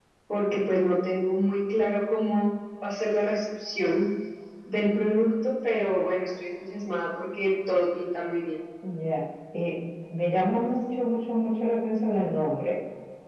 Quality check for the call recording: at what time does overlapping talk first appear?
none

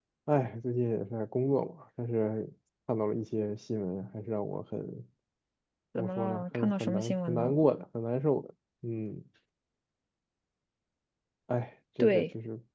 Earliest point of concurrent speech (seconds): 6 s

